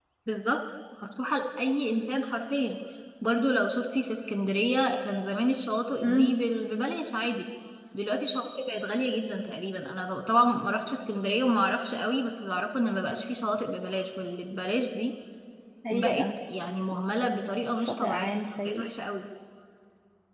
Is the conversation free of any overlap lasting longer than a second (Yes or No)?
Yes